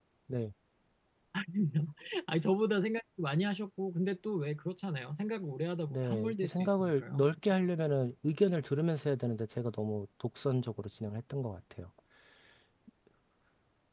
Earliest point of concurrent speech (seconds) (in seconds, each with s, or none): 5.9 s